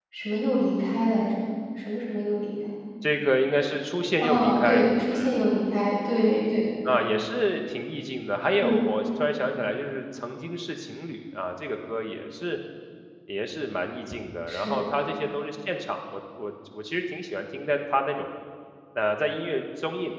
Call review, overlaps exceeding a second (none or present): present